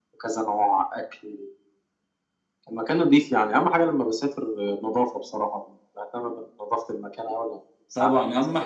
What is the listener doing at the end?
taking over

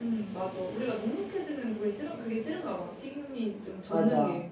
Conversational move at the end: taking over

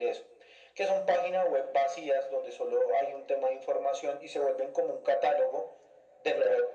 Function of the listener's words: listening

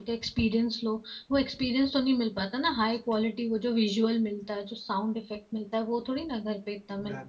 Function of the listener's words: taking over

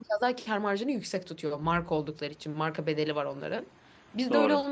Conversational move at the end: listening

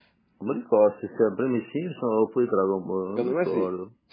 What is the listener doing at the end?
taking over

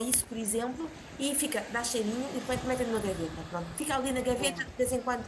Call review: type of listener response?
listening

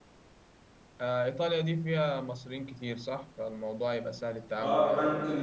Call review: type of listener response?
taking over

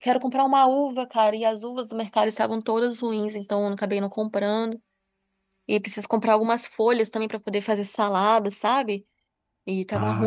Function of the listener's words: listening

